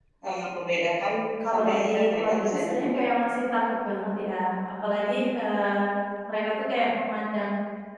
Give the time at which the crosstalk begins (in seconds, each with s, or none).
1.5 s